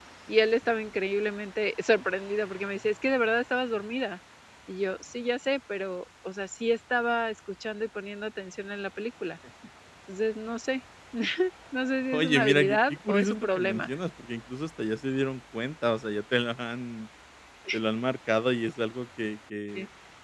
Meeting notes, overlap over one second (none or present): present